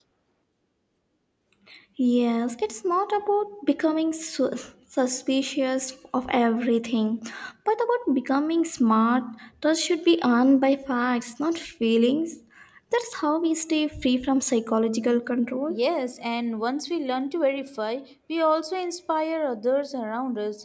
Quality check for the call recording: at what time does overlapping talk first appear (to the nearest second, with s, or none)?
none